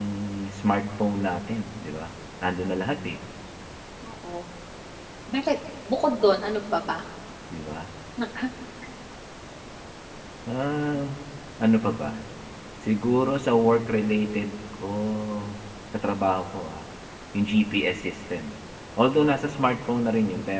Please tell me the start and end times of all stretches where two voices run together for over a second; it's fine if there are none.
none

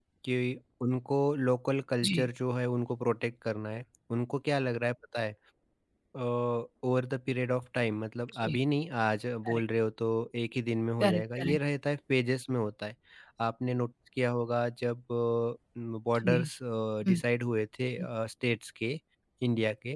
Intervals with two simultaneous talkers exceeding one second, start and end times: none

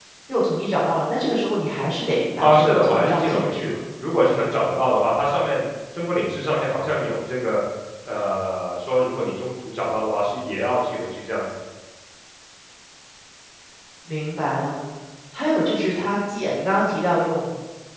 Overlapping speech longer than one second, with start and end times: 2.4-3.7

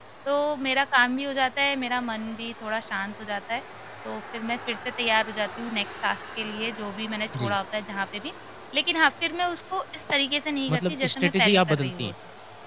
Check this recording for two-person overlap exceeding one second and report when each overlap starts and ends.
10.7-12.1

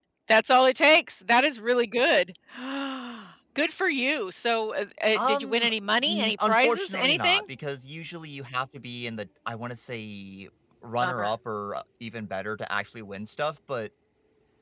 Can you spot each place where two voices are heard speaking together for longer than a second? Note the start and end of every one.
6.1-7.4

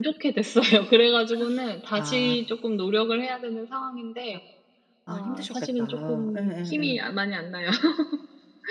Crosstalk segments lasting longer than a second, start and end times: 5.1-7.0

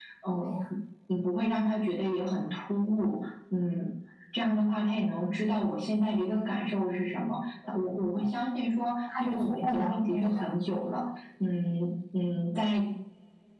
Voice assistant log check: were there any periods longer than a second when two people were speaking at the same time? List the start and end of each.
9.2-10.5

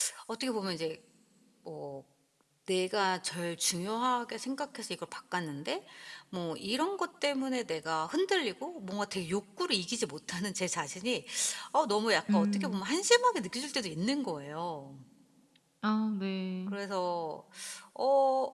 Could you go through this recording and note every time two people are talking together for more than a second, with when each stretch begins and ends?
none

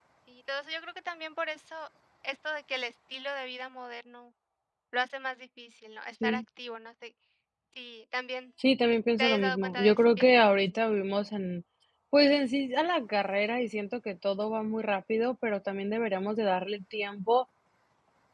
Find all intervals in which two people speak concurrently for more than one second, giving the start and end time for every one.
9.2-10.6

